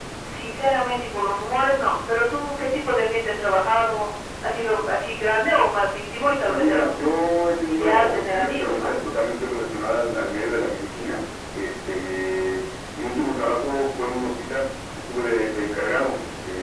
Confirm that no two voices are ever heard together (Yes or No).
No